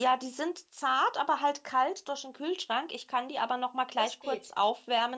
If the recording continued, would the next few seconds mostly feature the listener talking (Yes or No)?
No